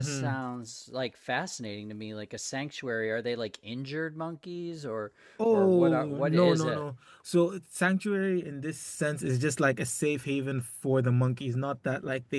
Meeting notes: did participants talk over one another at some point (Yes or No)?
Yes